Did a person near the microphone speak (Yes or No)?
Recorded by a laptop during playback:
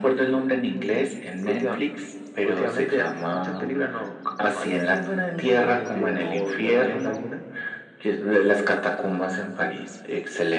No